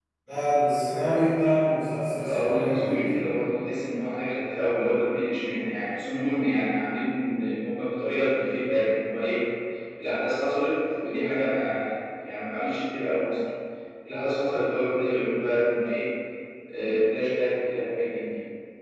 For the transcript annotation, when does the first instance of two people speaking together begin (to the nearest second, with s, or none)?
2 s